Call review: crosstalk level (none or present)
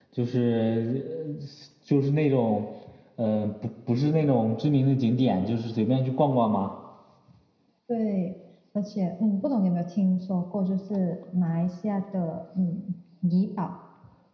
none